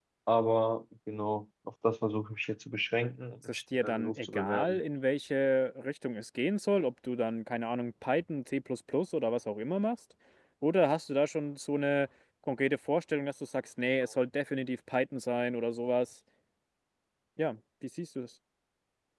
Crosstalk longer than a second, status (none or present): present